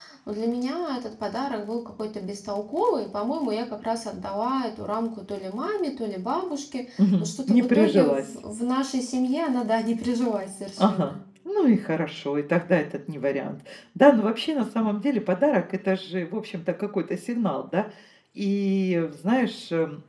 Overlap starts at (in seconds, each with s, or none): 7.0 s